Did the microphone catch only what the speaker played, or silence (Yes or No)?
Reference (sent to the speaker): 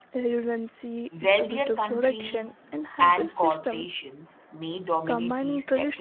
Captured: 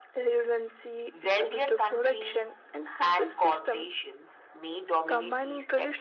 Yes